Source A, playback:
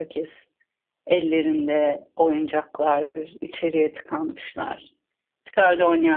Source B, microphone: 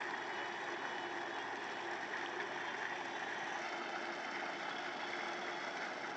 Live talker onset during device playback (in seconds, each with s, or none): none